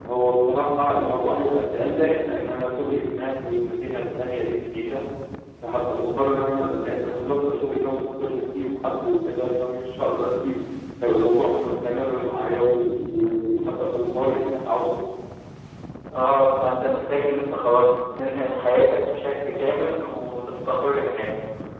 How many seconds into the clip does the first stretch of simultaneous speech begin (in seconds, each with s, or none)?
none